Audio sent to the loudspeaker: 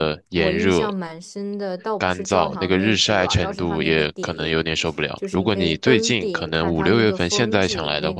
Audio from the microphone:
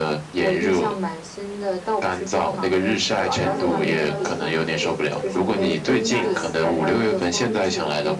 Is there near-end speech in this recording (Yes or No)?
Yes